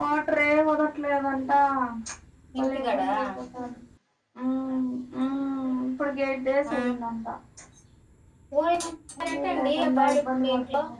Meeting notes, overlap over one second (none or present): present